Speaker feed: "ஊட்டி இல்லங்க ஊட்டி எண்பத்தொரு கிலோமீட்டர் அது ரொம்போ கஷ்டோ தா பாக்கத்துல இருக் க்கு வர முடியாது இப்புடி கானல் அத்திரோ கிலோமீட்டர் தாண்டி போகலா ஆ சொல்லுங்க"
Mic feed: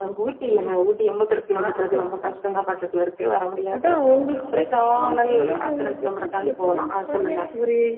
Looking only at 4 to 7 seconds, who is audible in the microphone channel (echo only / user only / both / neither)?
both